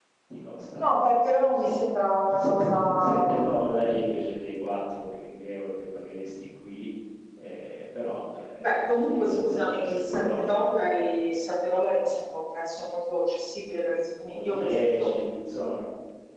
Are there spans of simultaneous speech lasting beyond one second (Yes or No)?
Yes